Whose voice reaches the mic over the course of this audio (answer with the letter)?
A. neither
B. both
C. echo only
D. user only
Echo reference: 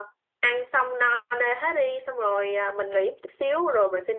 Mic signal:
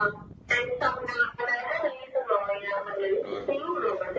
B